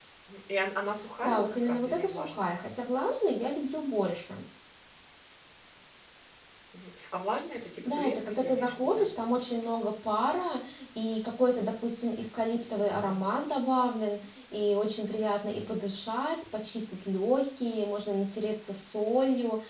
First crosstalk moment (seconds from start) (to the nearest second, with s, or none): 1 s